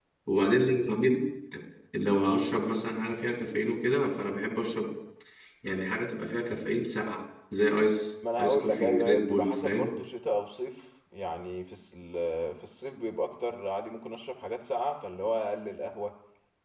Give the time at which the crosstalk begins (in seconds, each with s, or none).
8.2 s